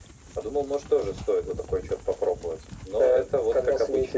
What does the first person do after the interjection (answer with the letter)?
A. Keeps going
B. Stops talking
B